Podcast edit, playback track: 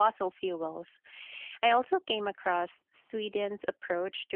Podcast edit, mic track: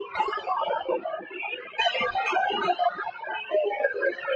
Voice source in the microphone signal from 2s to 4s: echo only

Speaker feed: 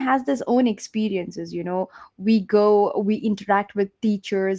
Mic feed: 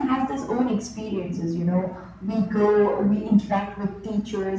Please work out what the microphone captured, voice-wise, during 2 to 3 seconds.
echo only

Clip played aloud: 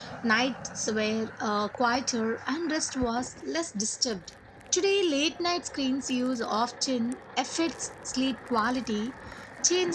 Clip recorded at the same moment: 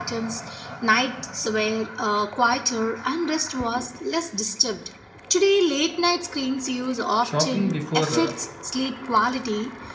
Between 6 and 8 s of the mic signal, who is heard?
both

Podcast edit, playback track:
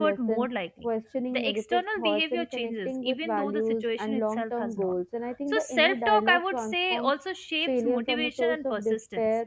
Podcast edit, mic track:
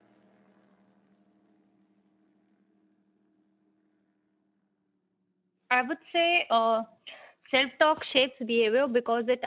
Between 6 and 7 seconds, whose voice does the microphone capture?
user only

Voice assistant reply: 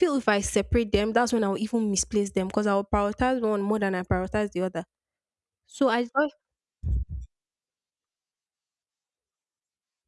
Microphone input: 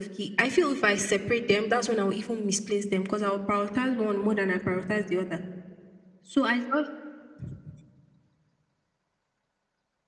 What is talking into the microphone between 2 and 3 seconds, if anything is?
echo only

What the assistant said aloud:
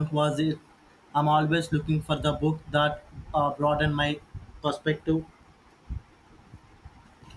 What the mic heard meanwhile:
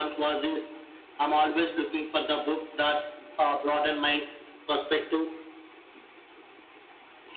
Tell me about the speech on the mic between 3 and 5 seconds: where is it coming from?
echo only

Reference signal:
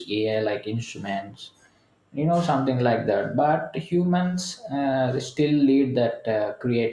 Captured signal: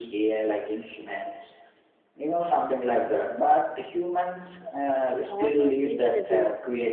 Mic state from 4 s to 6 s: both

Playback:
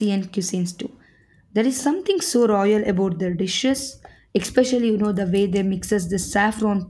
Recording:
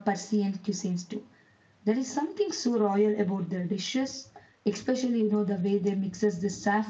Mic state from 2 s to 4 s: echo only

